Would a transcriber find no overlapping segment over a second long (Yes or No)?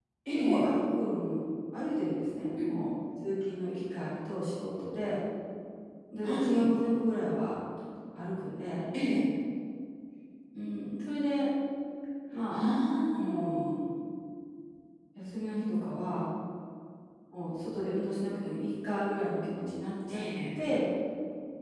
Yes